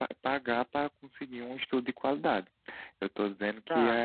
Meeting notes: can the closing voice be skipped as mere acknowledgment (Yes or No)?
No